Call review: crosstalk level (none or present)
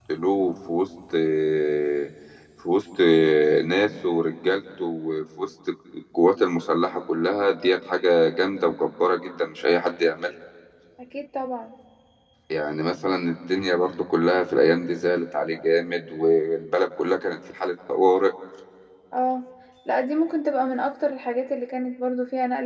none